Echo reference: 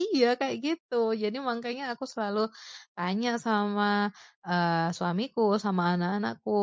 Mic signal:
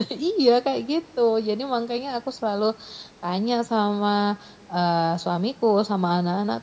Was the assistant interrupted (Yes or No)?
No